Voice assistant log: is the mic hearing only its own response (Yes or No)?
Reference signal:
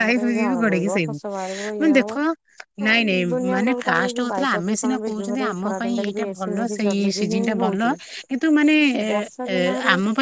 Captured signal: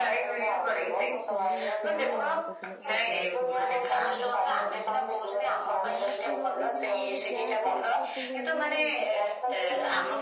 No